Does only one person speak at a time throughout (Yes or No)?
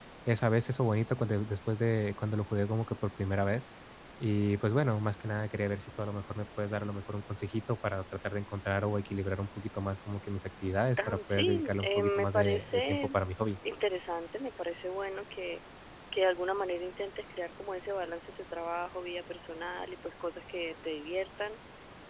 No